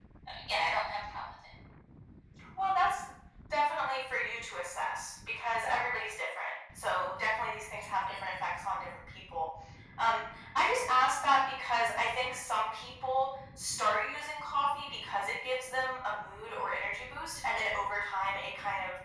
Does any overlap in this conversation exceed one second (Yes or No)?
No